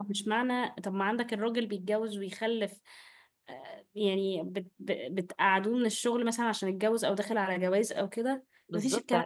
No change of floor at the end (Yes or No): No